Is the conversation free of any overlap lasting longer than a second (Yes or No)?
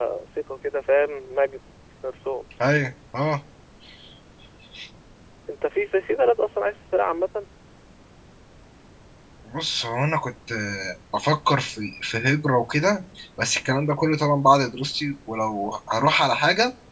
Yes